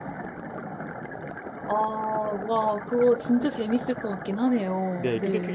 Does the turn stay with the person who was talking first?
No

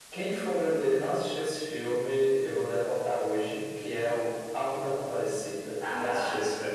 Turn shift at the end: Yes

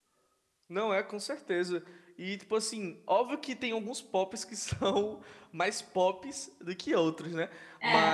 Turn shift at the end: No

